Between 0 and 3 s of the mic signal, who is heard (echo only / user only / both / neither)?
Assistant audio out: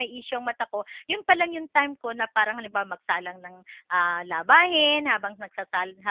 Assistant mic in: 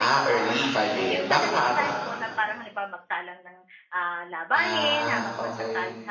both